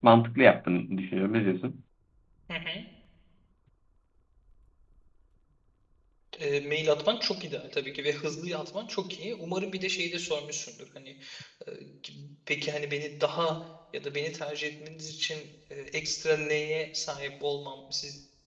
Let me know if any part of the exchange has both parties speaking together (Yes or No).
No